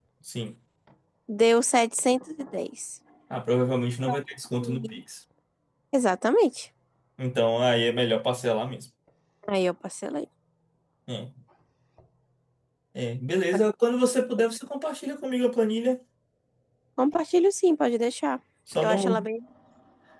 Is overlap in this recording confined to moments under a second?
Yes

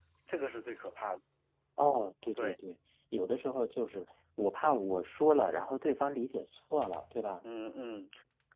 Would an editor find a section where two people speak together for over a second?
No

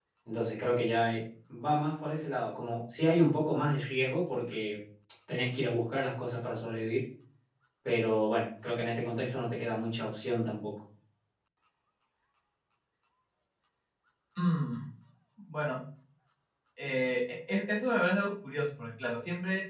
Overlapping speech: No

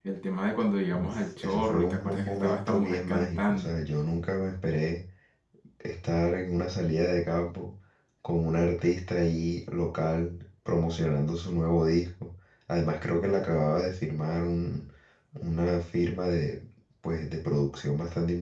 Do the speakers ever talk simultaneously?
Yes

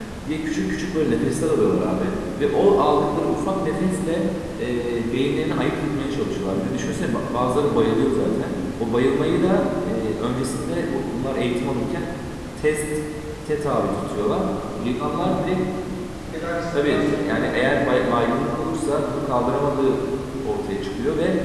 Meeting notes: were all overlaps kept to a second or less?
No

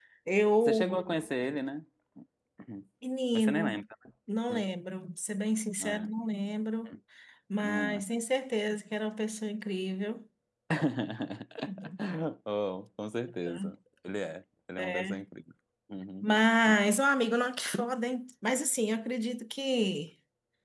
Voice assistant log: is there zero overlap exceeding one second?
Yes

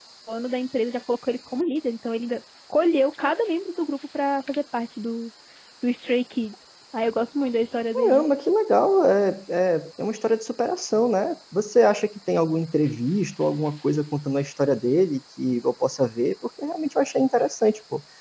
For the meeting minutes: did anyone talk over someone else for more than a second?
No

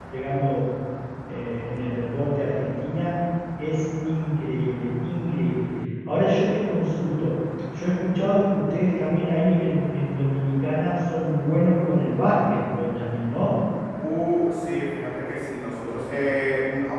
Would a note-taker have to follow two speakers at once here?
No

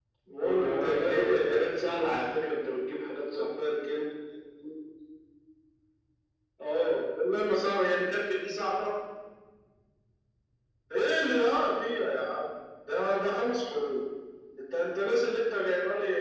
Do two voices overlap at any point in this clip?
Yes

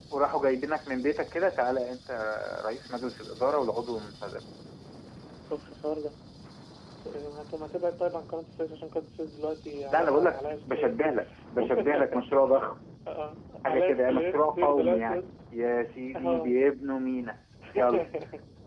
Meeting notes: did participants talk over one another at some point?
Yes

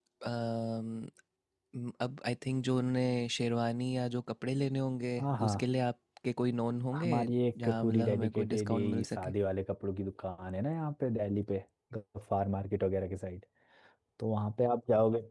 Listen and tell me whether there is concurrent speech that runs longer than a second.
Yes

